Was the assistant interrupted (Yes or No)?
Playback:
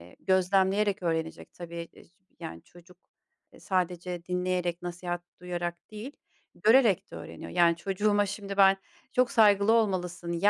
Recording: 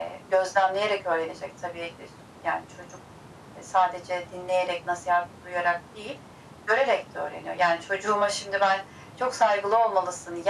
No